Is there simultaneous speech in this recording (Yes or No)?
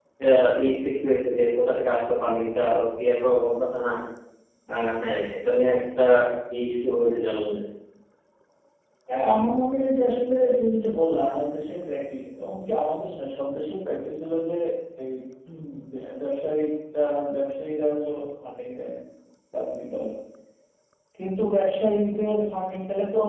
No